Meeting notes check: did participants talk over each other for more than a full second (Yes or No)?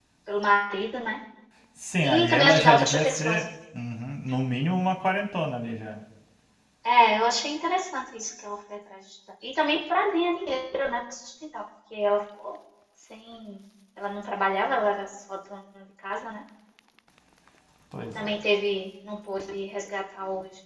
Yes